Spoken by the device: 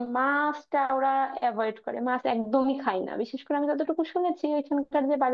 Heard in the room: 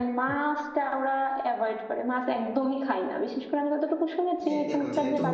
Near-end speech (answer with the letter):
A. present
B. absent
A